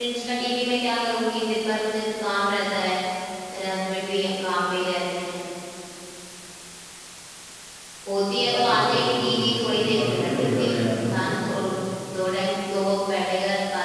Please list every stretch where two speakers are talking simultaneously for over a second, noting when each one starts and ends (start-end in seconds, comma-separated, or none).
8.4-11.3